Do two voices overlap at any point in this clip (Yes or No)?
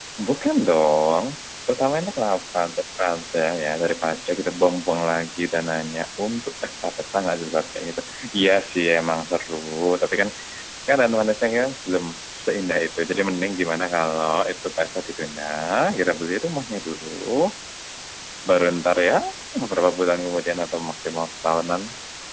No